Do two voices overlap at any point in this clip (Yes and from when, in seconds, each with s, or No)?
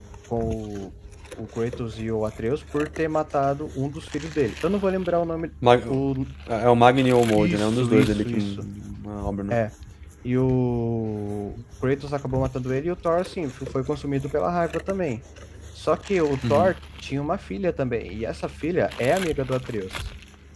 Yes, from 7.3 s